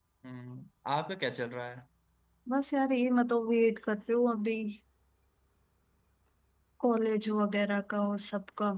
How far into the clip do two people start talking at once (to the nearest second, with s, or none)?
none